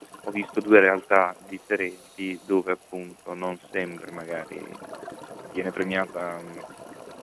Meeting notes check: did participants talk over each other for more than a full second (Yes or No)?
No